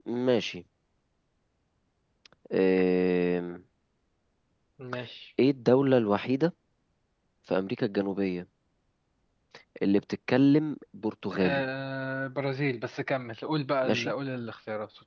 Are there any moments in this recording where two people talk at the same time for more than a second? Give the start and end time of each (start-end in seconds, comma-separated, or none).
none